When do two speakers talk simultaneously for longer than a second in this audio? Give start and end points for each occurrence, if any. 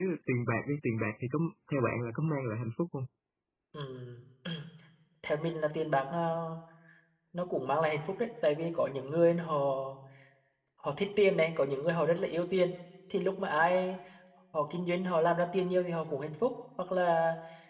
none

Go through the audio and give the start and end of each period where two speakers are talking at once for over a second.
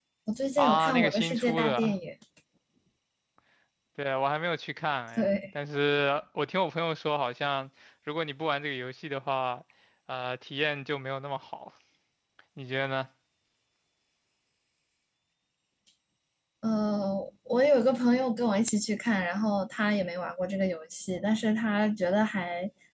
0.6-1.9

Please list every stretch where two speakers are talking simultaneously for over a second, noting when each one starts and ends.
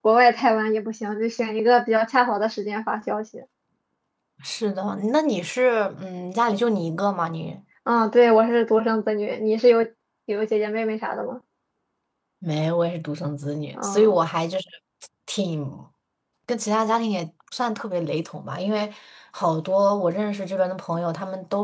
none

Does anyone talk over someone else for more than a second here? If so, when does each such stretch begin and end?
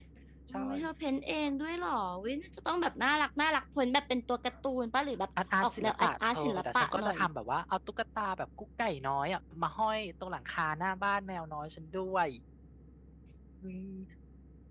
5.6-7.2

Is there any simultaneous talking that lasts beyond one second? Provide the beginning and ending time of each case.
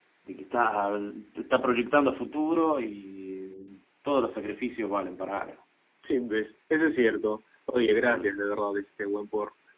none

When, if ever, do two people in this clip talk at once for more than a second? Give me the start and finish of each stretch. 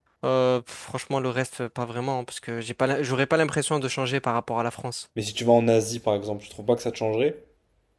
none

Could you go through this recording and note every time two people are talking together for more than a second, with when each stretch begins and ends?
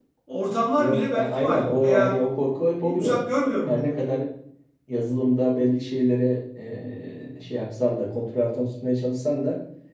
0.8-2.2

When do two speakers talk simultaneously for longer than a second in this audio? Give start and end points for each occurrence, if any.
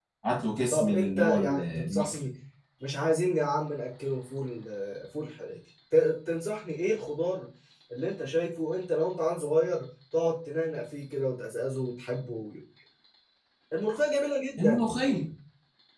0.7-2.3

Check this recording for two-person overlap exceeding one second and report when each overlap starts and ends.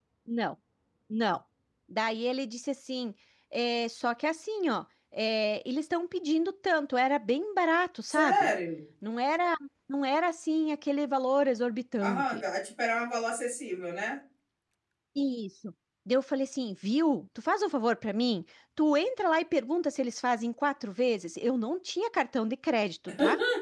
none

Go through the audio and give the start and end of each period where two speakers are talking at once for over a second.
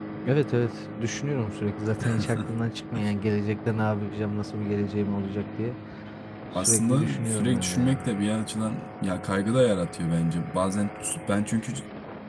6.6-8.0

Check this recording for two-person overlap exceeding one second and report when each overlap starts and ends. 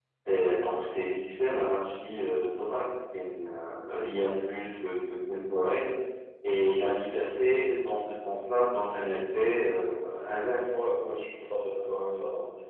none

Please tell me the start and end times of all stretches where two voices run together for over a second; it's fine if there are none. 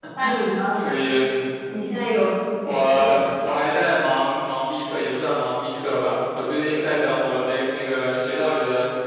none

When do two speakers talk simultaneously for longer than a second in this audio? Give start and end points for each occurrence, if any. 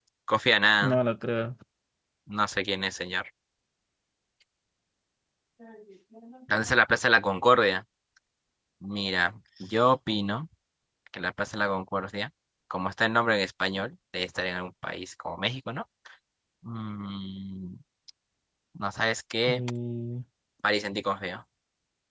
none

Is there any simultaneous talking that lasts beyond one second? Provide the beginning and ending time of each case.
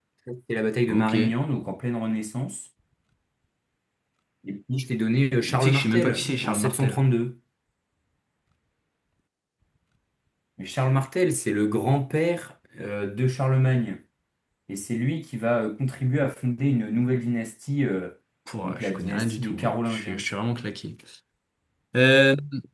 5.4-7.0, 18.6-20.2

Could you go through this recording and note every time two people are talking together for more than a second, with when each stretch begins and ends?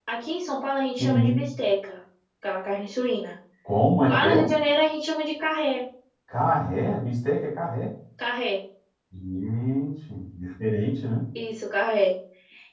none

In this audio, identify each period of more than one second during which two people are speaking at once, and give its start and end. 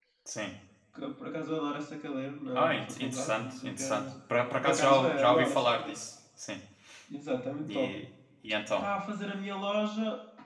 2.5-4.0, 4.4-5.9

